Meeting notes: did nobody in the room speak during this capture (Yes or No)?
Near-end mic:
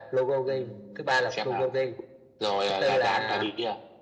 Yes